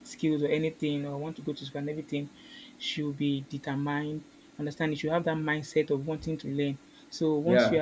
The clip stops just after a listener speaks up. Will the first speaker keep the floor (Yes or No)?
Yes